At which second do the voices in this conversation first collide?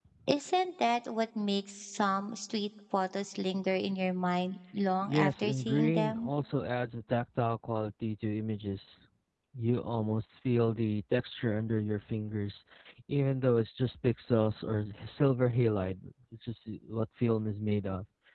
5 s

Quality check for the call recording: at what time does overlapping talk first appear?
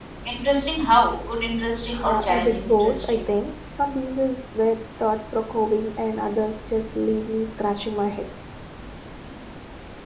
2 s

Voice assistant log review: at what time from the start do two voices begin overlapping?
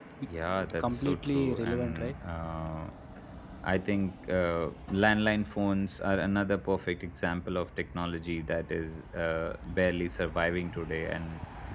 1 s

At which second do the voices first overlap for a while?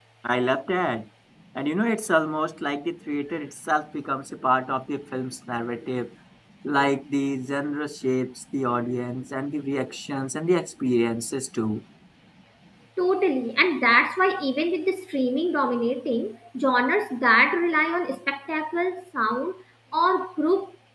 none

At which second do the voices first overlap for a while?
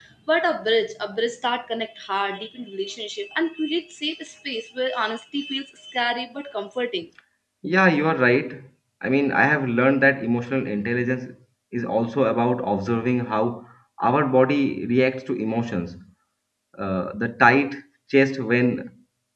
none

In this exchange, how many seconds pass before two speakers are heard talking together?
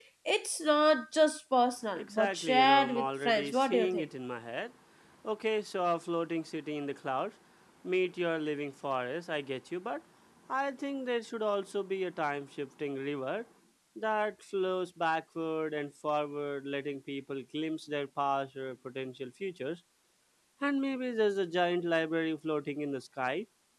2 s

